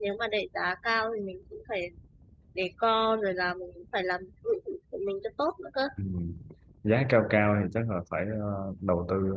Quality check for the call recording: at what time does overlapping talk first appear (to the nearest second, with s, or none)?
none